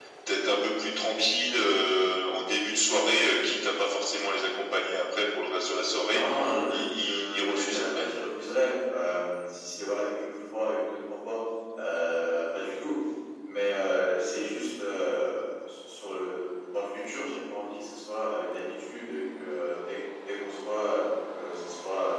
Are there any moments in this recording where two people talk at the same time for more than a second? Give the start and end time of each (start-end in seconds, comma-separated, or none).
6.7-8.1